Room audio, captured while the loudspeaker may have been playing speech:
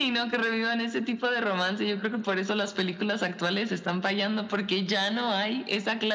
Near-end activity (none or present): none